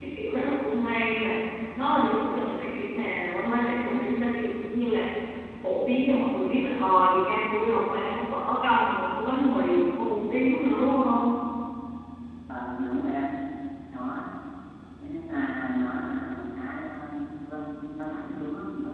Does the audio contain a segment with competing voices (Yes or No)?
No